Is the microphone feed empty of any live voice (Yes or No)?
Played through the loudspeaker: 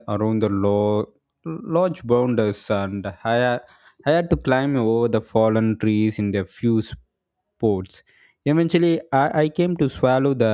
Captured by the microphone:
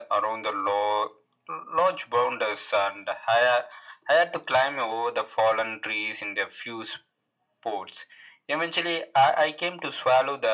Yes